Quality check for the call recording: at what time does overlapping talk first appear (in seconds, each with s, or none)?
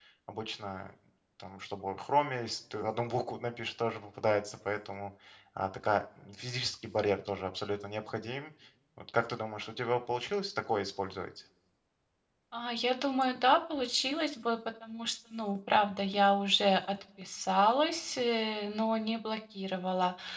none